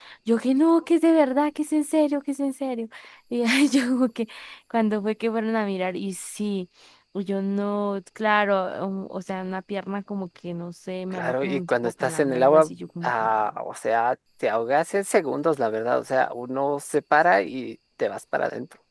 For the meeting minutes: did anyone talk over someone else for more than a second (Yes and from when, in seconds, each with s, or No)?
Yes, from 11.2 s